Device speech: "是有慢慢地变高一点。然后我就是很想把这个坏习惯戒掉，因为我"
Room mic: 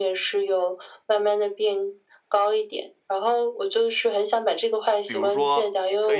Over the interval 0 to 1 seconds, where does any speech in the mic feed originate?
echo only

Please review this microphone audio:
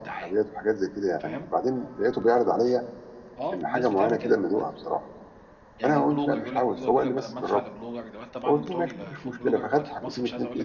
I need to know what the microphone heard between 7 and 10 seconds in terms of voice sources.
both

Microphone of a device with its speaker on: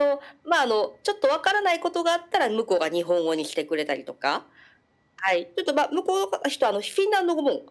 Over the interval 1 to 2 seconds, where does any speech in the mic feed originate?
echo only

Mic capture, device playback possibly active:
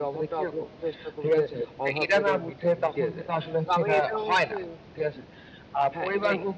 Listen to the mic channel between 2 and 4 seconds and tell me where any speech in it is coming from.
both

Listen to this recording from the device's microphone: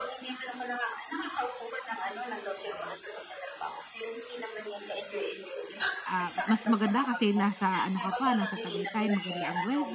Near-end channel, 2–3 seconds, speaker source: echo only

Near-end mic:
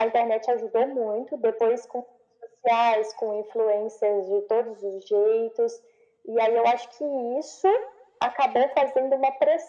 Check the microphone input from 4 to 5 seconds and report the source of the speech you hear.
echo only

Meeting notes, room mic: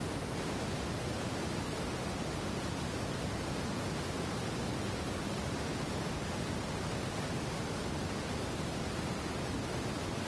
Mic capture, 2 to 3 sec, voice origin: neither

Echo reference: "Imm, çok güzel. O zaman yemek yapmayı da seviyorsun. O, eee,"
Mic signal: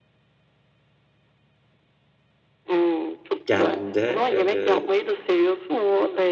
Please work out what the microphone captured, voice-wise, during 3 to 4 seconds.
both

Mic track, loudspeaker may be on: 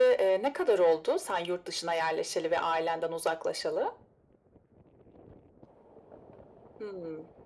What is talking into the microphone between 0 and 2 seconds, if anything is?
echo only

